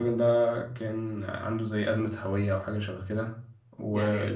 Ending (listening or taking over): listening